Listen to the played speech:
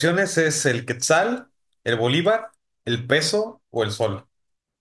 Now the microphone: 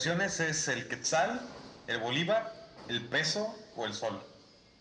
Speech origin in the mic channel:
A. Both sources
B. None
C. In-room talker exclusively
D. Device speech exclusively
D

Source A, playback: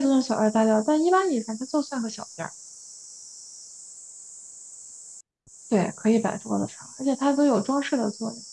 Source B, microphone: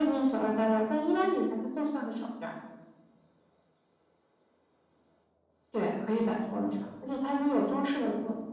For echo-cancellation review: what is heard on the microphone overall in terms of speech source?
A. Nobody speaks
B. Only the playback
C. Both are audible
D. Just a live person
B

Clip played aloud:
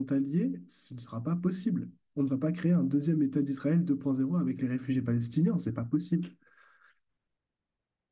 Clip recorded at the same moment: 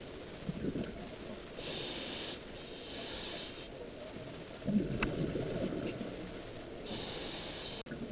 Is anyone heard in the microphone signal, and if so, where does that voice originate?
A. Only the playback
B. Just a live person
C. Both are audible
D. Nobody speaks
D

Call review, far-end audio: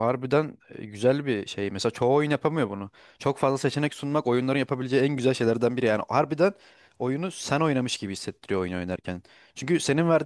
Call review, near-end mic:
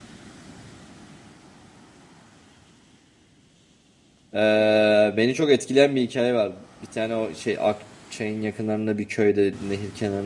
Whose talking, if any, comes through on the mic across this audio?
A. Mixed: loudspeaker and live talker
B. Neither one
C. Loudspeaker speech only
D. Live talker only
D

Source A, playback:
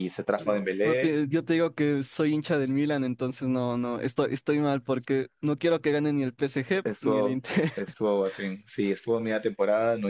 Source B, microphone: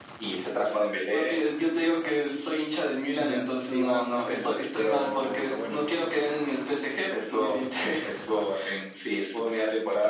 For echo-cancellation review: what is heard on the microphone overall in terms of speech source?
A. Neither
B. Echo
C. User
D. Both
D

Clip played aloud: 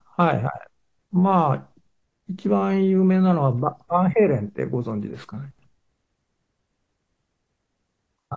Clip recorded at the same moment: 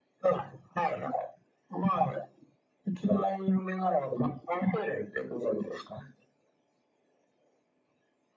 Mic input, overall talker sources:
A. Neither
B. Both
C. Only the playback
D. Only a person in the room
C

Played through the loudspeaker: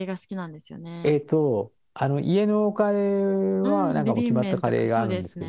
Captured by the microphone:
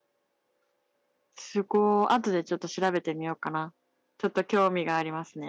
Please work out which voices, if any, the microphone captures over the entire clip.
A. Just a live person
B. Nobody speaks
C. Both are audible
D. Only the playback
A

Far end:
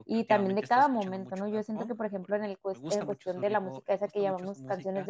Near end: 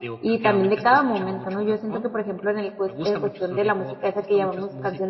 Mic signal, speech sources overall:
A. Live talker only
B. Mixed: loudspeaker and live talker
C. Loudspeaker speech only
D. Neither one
C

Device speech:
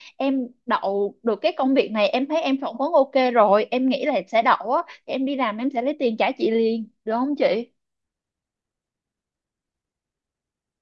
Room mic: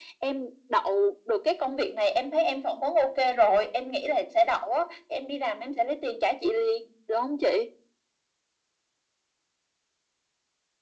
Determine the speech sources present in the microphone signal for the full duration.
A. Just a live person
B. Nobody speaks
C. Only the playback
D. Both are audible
C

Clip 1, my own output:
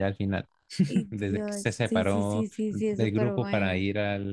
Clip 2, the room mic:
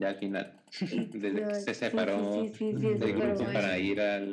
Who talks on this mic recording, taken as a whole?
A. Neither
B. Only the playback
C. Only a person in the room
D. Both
D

